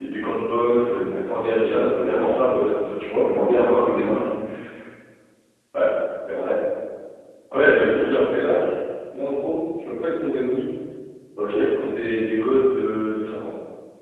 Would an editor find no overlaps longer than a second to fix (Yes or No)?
No